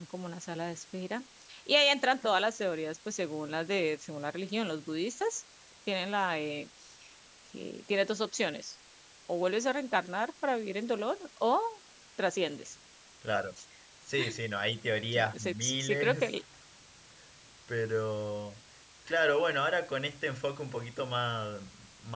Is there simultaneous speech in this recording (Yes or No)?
Yes